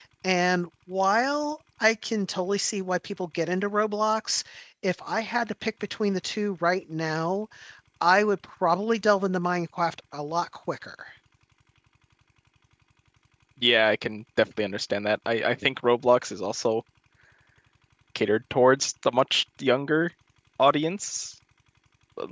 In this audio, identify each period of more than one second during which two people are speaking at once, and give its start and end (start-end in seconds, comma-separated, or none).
none